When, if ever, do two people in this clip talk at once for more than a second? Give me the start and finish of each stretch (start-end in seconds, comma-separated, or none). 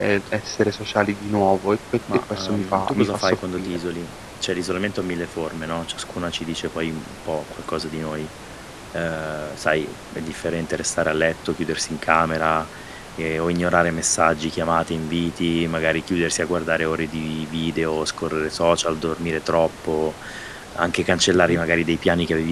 2.1-3.8